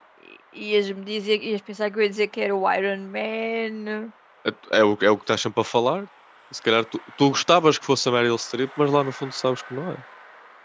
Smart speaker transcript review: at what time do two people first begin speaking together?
none

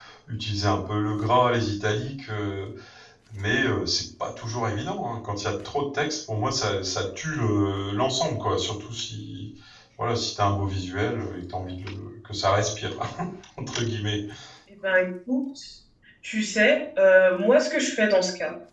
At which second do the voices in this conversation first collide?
none

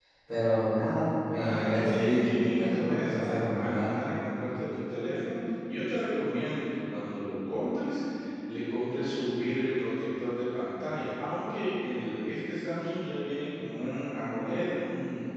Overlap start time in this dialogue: 1 s

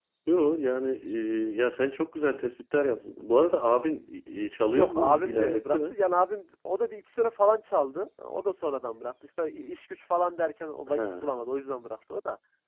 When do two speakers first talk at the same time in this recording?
5 s

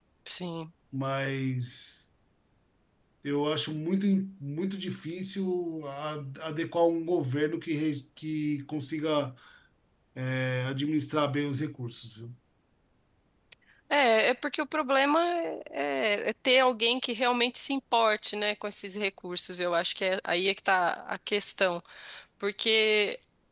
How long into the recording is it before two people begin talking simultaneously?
none

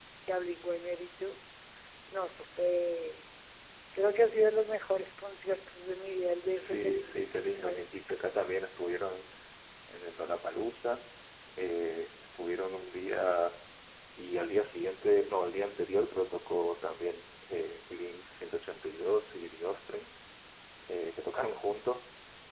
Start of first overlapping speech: 7 s

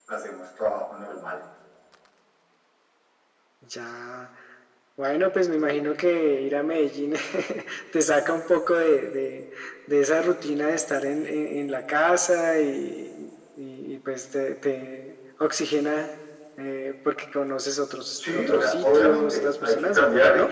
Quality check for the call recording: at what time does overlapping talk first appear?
18 s

